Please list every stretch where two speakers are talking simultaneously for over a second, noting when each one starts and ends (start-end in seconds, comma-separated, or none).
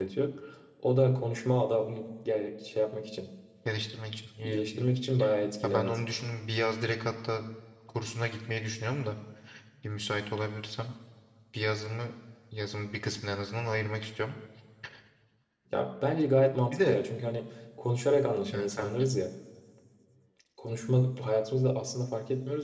none